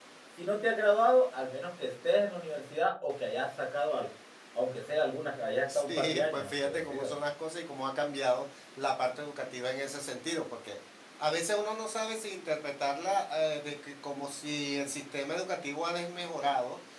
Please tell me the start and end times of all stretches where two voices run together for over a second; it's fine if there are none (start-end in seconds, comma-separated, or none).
5.8-7.1